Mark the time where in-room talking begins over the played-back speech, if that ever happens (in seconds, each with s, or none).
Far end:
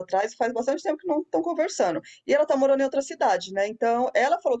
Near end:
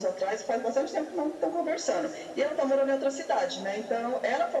none